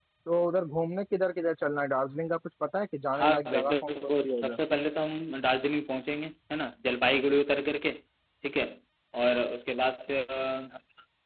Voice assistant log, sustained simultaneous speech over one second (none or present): present